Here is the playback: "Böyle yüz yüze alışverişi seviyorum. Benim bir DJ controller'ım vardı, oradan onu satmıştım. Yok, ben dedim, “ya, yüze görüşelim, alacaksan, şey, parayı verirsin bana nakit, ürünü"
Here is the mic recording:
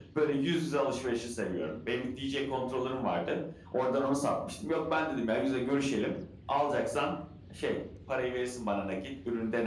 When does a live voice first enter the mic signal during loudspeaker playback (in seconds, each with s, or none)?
none